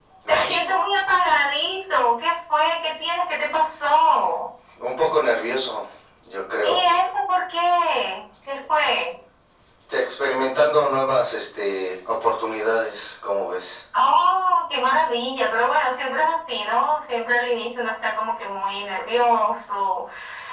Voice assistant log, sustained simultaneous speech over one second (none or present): none